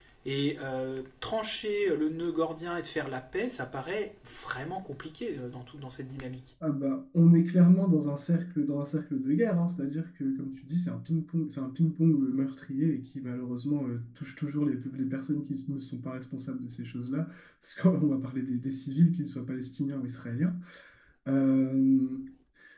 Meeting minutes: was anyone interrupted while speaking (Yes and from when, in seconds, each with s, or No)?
No